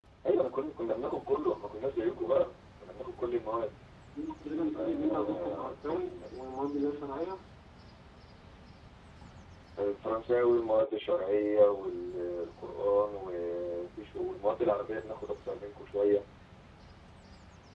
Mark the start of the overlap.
5 s

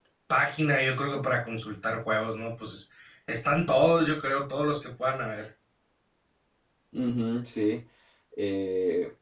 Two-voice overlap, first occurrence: none

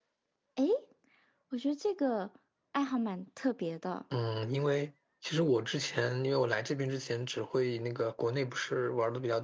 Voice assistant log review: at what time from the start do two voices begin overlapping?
none

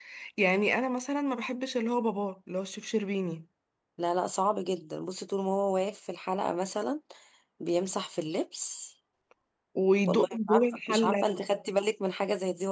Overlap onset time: 10 s

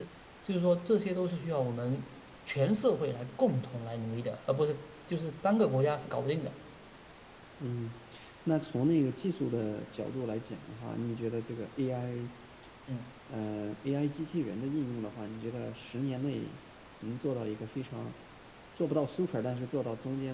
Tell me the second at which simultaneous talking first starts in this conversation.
none

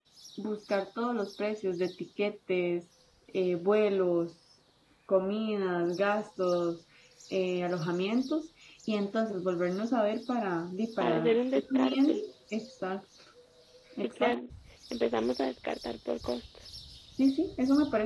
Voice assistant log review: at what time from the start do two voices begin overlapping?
11 s

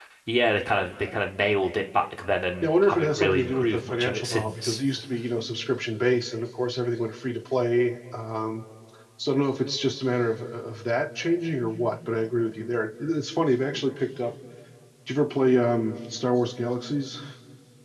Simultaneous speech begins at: 3 s

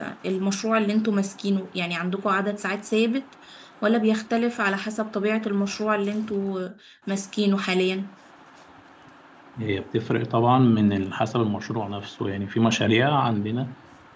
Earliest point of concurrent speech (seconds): none

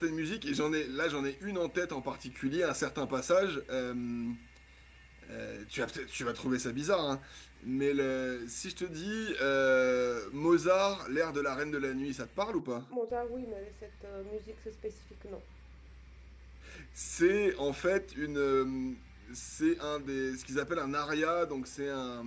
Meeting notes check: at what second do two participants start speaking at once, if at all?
none

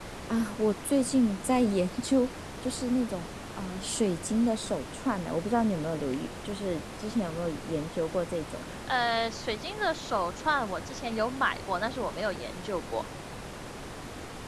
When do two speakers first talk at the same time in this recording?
none

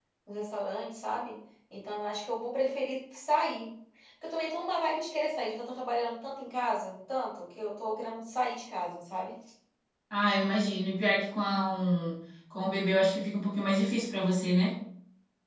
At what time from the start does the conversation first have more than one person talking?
none

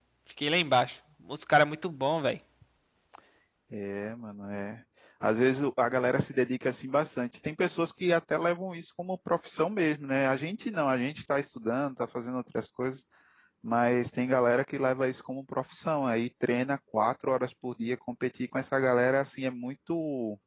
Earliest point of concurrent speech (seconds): none

